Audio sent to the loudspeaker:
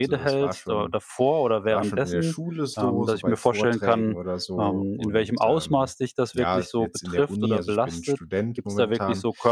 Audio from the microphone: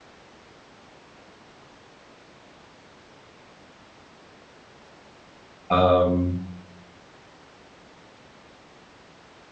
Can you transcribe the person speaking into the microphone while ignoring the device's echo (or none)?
Ähm,